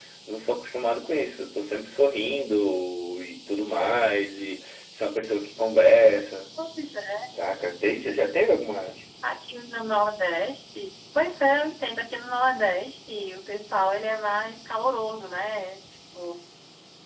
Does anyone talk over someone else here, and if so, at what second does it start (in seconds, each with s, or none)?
none